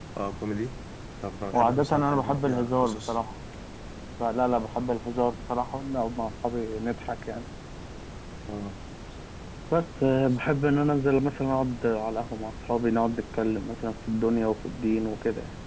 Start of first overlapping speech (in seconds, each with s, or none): 1.5 s